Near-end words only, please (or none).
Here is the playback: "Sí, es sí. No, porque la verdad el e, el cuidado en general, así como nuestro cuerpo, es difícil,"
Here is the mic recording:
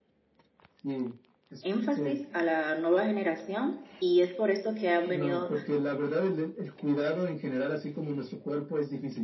énfasis a la nueva generación y es por esto que han venido